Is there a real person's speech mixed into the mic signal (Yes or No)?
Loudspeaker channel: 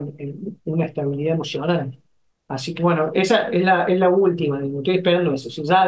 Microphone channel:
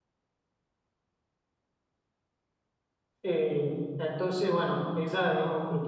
Yes